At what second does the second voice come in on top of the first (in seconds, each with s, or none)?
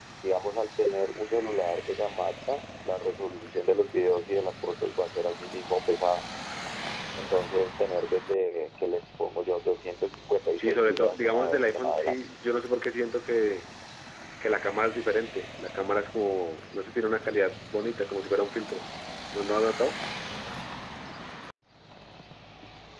10.6 s